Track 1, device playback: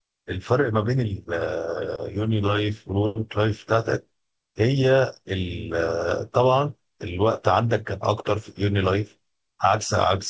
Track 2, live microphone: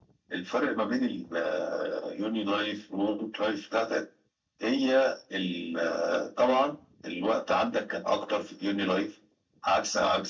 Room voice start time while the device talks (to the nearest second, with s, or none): none